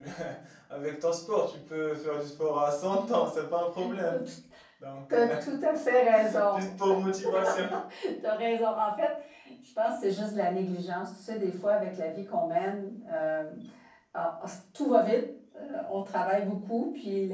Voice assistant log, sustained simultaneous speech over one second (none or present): none